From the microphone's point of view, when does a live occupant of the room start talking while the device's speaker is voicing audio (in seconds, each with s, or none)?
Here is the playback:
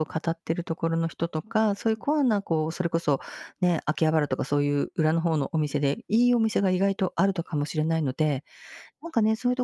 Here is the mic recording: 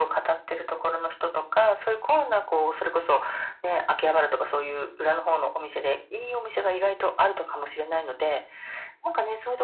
none